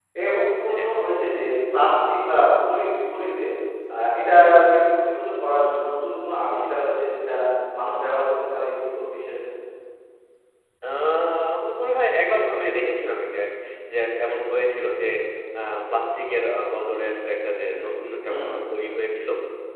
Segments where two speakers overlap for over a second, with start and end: none

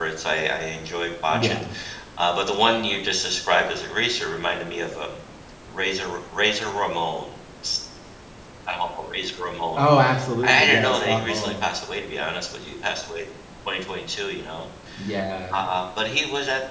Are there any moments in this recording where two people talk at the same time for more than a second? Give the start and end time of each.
10.4-11.7

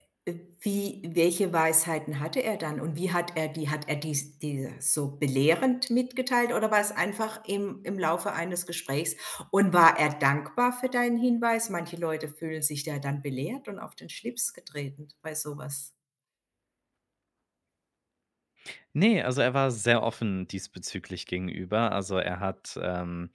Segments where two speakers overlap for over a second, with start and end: none

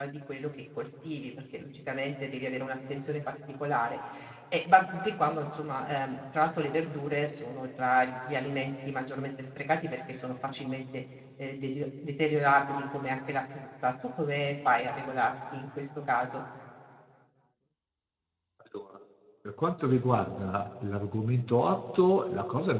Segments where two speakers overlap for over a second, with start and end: none

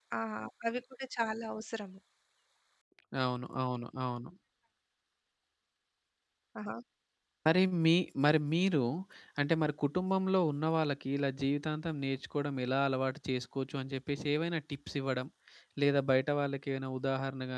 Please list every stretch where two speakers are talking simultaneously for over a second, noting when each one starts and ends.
none

